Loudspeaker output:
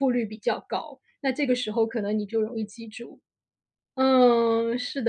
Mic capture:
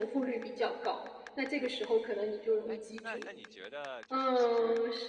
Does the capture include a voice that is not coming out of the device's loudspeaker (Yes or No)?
Yes